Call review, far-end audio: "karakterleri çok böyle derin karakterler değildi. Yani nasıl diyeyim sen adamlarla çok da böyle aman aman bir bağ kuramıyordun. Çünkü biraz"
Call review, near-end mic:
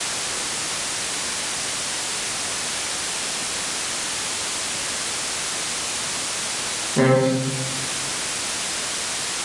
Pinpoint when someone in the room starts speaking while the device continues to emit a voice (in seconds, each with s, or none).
7.0 s